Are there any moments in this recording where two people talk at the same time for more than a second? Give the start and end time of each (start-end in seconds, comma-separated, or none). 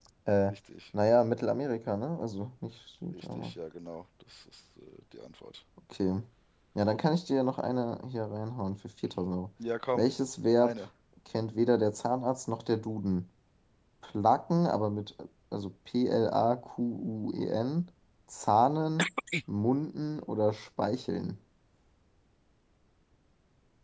none